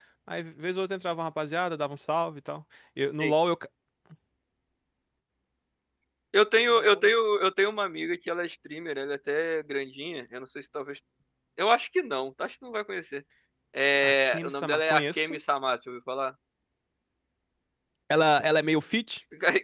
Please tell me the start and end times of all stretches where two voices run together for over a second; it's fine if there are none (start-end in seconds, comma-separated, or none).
14.0-15.4